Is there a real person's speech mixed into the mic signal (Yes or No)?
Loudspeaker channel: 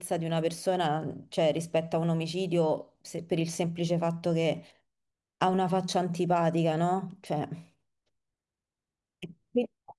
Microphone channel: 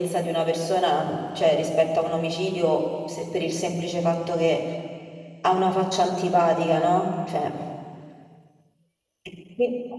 No